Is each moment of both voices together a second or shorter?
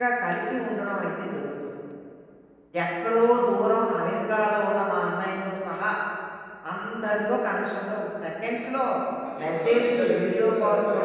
No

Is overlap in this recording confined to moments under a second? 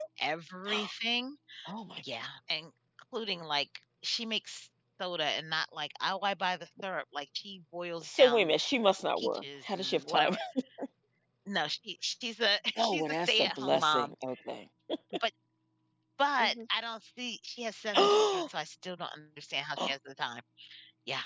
No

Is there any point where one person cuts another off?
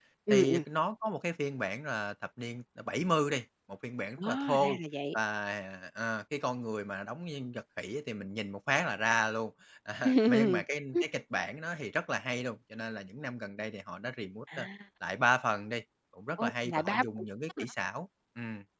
Yes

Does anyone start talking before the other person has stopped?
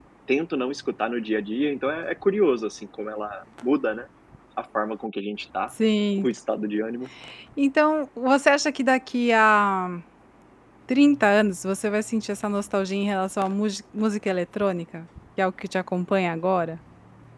No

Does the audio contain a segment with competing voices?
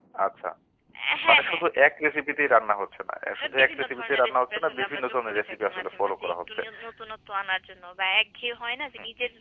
Yes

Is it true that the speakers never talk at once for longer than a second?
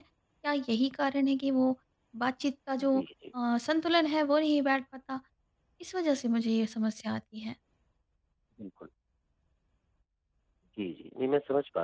Yes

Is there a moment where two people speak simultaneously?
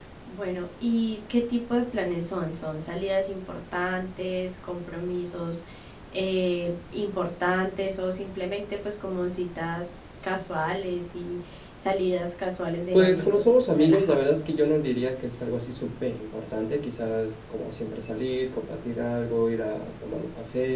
Yes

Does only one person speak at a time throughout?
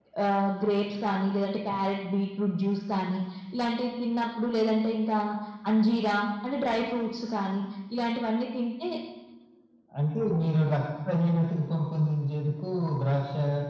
Yes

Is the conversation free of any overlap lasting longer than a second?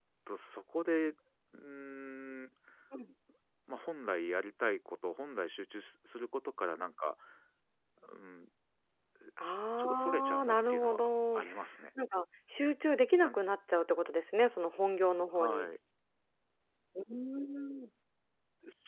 No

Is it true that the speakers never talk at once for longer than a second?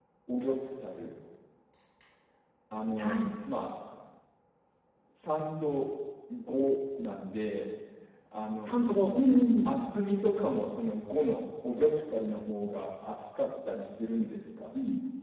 Yes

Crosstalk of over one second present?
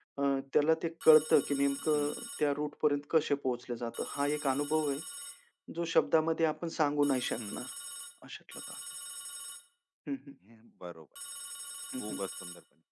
No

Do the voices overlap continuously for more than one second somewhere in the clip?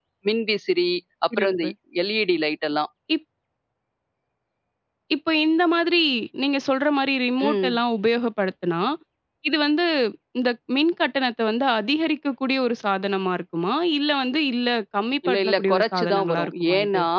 Yes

